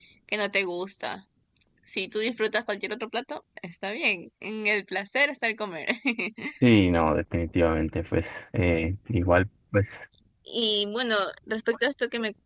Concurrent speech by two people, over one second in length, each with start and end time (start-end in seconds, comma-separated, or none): none